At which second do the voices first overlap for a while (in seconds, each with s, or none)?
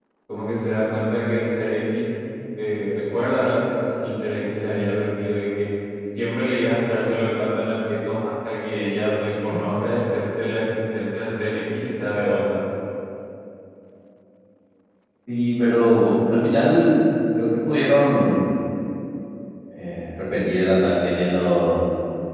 none